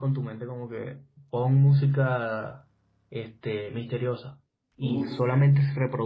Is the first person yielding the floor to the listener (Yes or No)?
No